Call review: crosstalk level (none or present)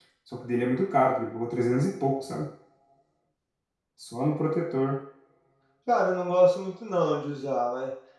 none